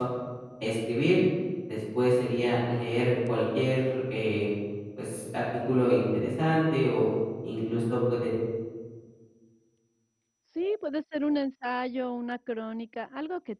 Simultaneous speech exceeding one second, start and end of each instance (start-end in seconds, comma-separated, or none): none